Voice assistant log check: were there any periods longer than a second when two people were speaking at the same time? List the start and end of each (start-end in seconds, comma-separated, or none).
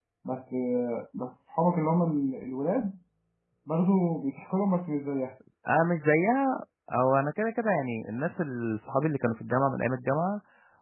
none